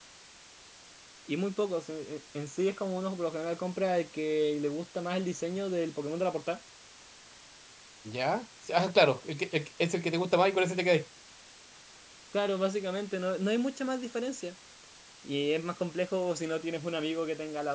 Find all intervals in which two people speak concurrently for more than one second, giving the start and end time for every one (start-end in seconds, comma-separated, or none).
none